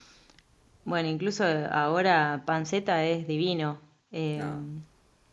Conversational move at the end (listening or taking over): listening